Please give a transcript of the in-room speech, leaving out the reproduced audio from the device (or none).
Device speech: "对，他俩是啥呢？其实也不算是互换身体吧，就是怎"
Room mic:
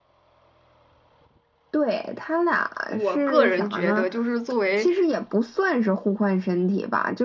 我个人觉得，就是作为